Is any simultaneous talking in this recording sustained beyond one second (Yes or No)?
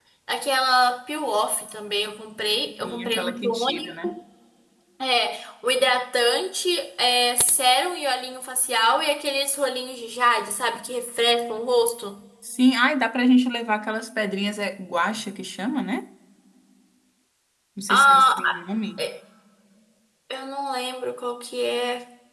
Yes